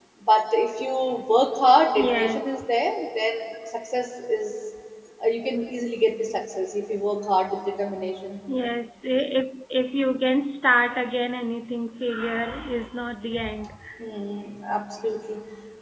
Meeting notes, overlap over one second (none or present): none